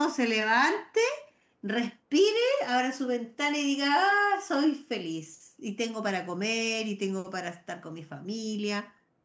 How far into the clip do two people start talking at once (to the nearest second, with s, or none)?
none